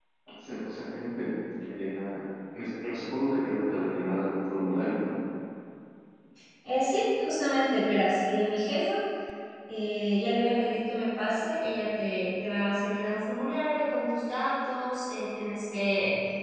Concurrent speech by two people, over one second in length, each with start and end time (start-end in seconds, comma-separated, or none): none